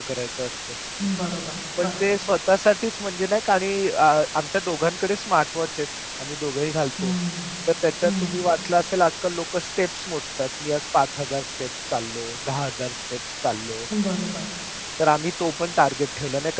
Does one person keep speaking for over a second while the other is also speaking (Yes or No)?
No